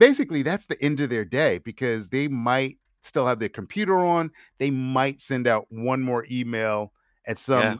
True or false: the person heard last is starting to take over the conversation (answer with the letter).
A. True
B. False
B